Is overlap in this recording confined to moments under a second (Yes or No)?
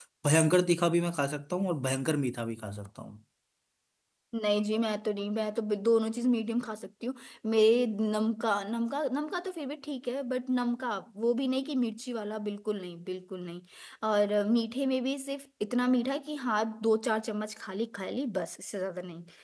Yes